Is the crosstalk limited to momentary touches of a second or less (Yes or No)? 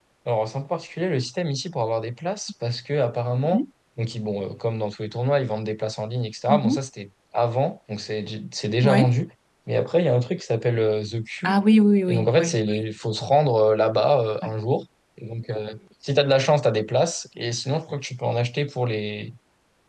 Yes